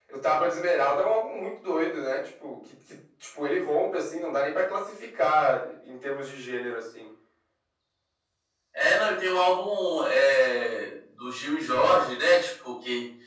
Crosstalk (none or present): none